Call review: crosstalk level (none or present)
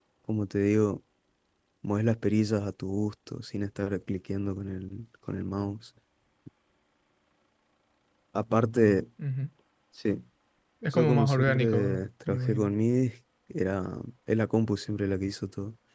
present